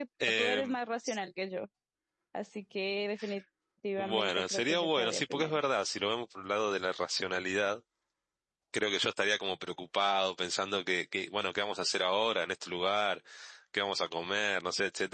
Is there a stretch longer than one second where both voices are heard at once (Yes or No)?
Yes